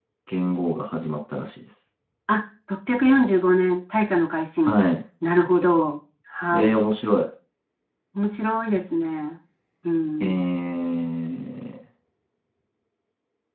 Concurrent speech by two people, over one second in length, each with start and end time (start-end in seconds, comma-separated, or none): none